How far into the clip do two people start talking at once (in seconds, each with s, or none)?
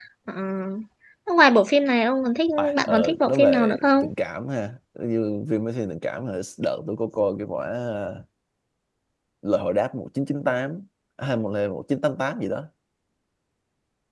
2.6 s